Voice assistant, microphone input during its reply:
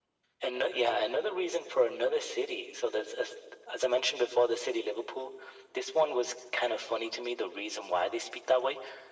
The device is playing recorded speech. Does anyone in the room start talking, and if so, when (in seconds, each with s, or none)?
none